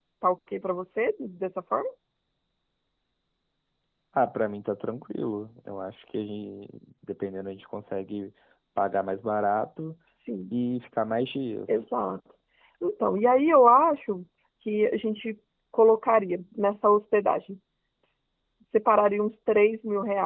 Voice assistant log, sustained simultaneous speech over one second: none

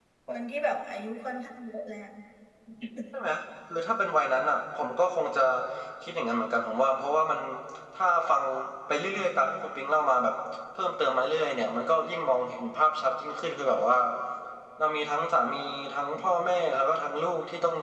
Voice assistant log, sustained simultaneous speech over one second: none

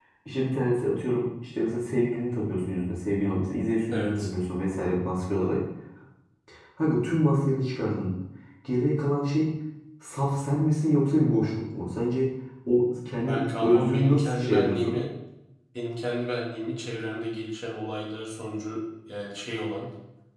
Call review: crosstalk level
present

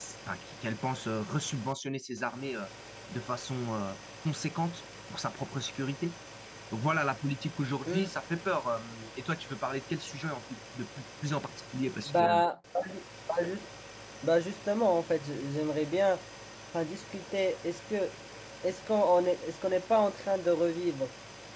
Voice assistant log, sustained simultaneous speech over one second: none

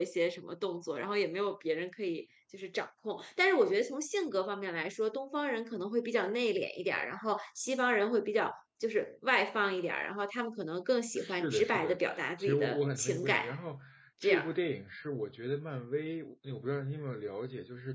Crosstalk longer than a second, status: present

